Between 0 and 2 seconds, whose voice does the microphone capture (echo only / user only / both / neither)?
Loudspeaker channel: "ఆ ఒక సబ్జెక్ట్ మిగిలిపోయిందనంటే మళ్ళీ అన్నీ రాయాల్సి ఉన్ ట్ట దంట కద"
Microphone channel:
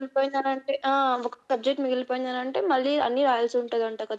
echo only